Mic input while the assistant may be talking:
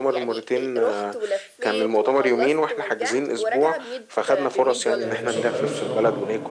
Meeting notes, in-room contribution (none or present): present